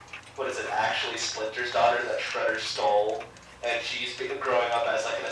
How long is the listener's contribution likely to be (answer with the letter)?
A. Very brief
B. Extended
A